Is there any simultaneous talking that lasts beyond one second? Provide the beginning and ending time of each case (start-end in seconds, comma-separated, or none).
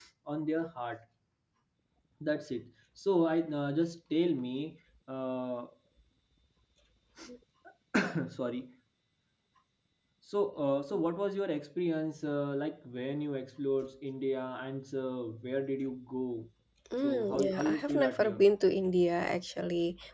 17.0-18.4